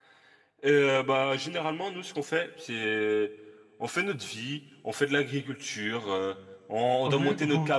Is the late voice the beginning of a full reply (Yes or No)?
No